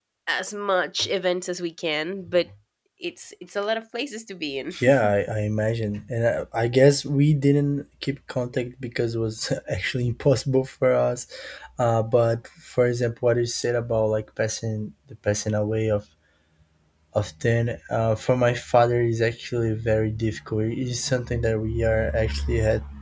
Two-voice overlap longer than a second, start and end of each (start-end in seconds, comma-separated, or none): none